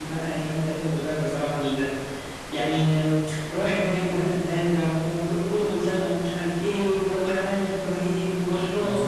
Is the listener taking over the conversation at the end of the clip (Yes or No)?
Yes